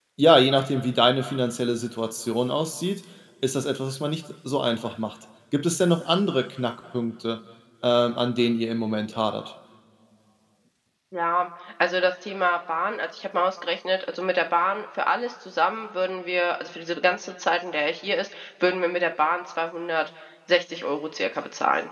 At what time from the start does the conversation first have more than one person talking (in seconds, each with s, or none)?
none